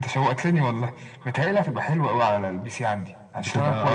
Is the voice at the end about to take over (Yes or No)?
No